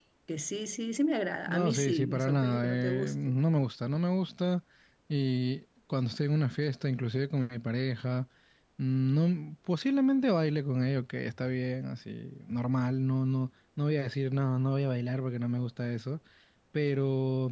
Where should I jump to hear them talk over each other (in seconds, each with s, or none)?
1.5 s